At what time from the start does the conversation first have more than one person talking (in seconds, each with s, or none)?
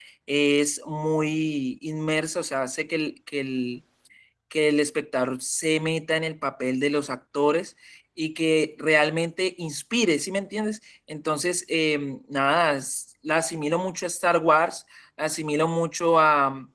none